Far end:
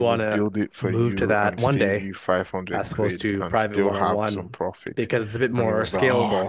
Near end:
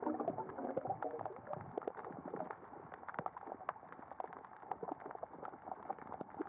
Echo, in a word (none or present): none